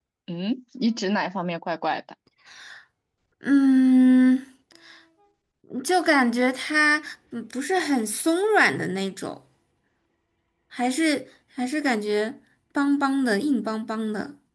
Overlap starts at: none

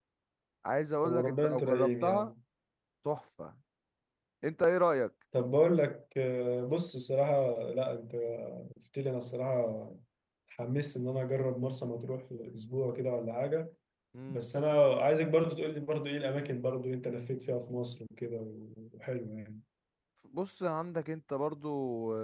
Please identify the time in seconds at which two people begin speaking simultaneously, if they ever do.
1.0 s

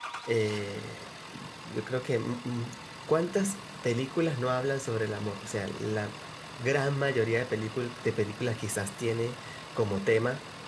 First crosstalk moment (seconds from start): none

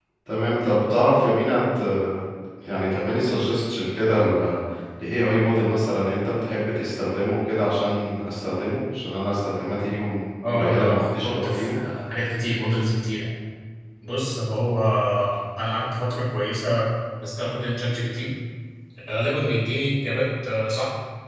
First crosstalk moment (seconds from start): 10.4 s

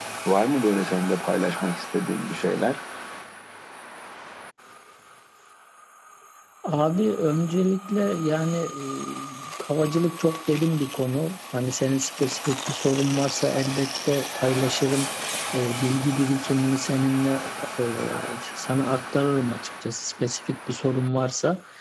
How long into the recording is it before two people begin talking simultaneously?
none

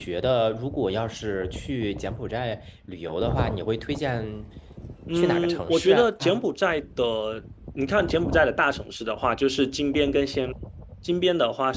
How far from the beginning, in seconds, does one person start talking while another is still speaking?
5.1 s

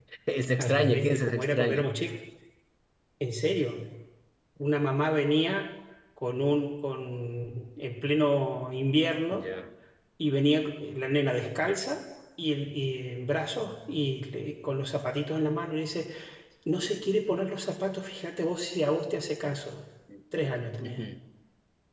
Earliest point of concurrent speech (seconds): 0.6 s

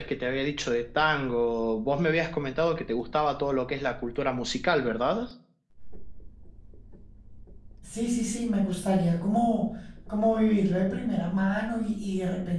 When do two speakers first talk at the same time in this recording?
none

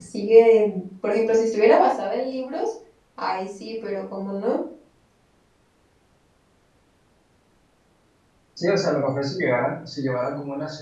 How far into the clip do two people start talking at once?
none

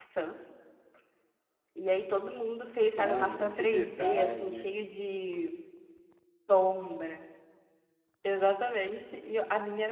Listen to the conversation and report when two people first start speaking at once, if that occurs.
2.7 s

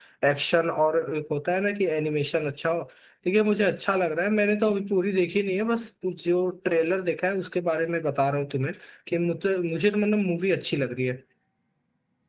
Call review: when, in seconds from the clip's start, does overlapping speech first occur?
none

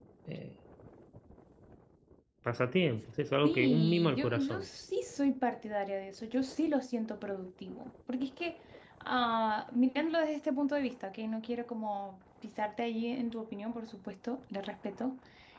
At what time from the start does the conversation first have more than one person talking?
3.4 s

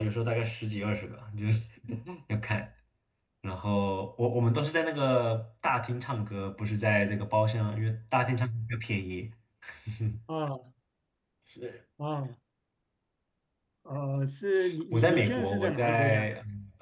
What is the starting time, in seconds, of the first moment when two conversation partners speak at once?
14.9 s

